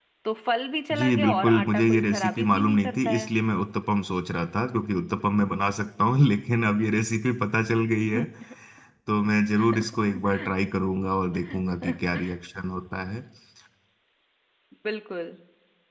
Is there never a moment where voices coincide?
No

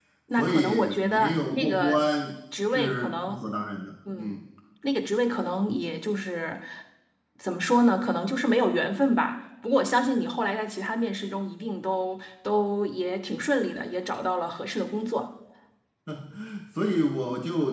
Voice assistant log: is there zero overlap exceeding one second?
No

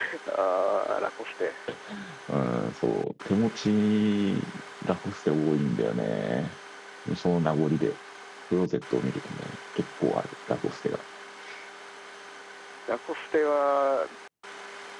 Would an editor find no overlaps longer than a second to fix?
Yes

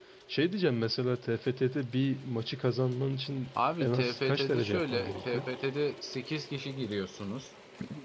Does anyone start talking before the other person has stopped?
Yes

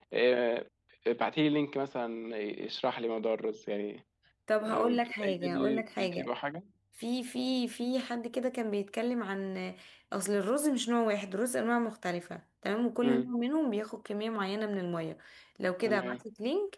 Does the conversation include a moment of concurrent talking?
Yes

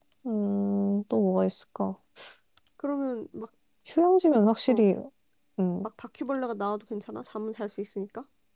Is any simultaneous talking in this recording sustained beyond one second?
No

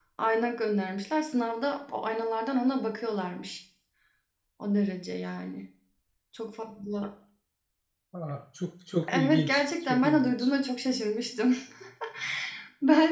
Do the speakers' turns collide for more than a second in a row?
Yes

